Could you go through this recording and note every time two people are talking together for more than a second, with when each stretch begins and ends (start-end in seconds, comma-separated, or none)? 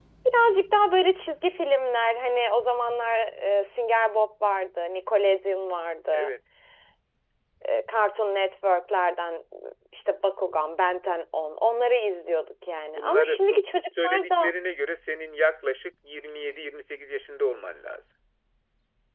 12.9-14.5